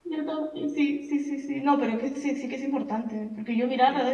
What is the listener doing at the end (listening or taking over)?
listening